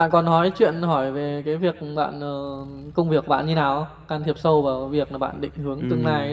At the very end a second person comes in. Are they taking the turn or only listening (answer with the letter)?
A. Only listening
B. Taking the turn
B